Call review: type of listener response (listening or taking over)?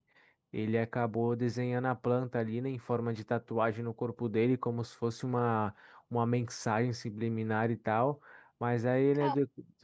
listening